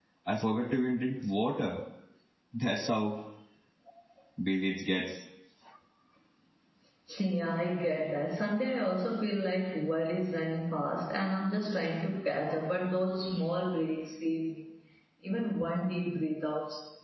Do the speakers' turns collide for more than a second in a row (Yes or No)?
No